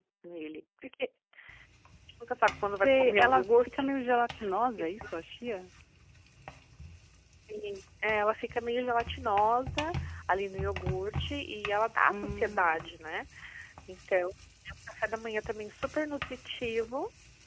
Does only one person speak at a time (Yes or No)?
No